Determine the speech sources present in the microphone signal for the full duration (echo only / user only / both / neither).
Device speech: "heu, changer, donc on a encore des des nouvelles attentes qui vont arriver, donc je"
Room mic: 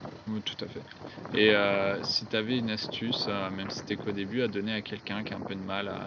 user only